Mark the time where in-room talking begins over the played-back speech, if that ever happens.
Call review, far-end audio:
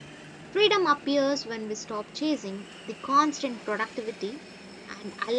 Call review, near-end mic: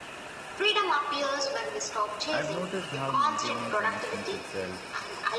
2.3 s

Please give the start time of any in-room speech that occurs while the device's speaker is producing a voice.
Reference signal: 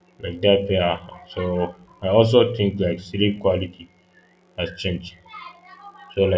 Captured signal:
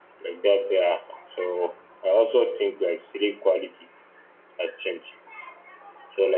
none

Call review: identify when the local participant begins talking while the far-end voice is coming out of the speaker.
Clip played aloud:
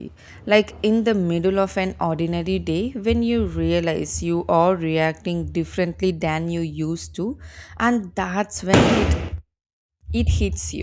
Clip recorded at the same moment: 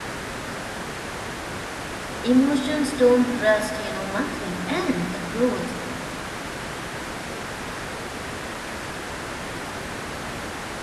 2.2 s

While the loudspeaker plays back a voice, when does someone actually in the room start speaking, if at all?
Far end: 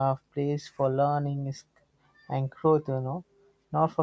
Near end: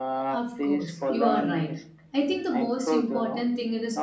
0.3 s

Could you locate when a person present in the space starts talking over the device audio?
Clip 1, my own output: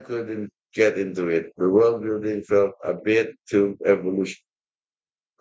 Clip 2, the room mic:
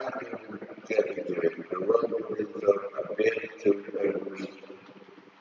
none

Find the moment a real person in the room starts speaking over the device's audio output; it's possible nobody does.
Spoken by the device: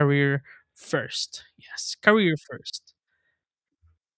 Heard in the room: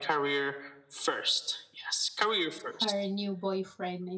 2.8 s

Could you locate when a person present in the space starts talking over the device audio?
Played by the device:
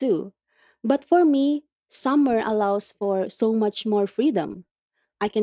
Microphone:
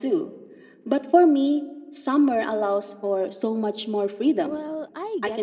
4.4 s

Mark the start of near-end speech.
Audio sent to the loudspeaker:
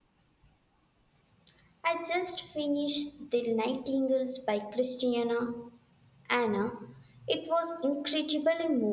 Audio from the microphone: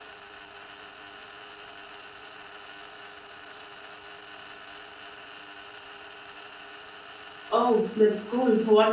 7.5 s

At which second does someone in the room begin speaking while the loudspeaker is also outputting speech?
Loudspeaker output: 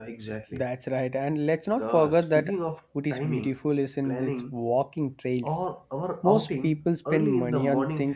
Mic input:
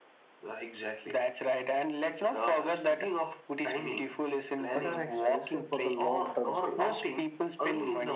4.7 s

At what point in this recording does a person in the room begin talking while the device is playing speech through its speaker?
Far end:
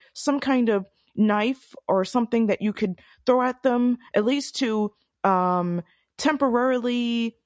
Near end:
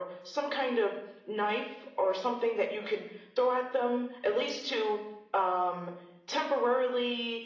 none

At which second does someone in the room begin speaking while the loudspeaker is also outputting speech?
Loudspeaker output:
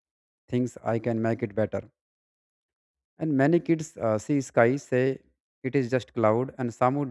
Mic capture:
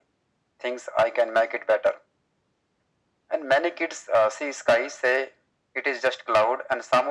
none

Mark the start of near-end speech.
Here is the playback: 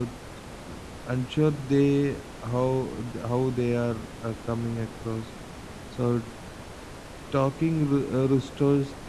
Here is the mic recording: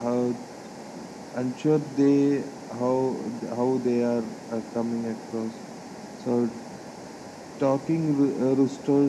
none

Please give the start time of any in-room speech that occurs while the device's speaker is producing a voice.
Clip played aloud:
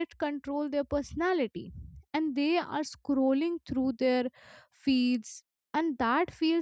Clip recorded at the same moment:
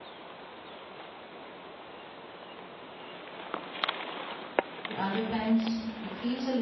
4.8 s

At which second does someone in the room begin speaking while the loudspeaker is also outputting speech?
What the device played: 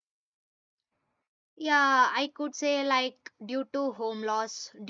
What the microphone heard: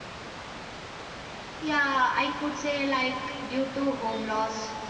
none

